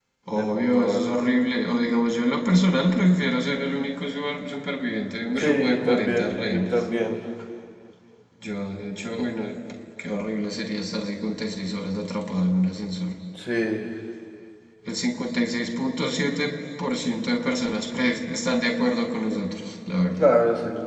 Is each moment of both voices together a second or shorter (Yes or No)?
No